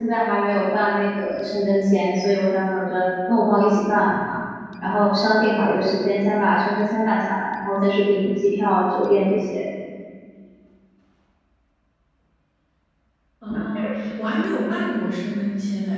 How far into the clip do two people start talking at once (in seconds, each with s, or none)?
none